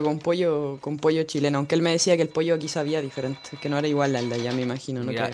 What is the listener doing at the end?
taking over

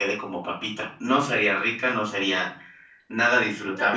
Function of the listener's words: listening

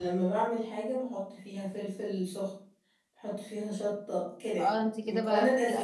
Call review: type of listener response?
taking over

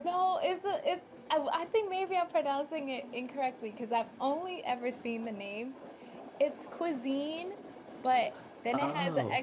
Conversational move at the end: listening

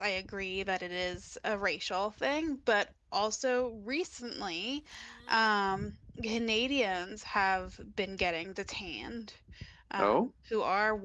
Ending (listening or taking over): listening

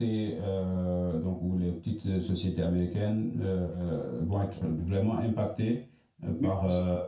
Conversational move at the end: taking over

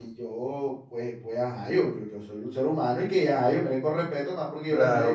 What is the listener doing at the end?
taking over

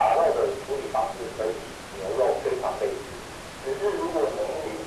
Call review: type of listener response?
listening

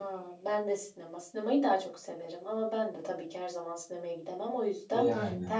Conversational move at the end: listening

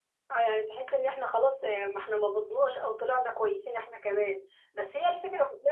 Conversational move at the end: listening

